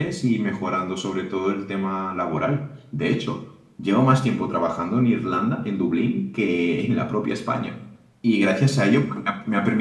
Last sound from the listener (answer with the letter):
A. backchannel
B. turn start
A